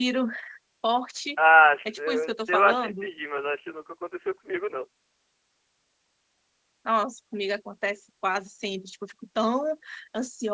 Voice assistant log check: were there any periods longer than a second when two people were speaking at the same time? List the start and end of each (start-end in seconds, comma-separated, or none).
1.9-3.1